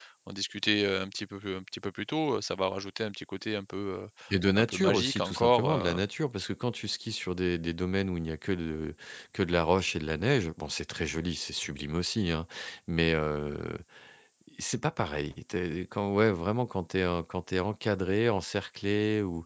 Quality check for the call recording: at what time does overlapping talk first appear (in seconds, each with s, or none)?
4.6 s